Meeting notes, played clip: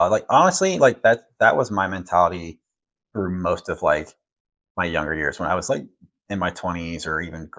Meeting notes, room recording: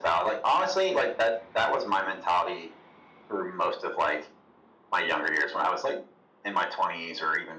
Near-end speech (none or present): none